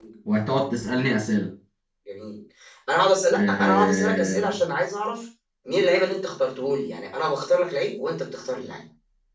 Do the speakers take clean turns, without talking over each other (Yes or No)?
No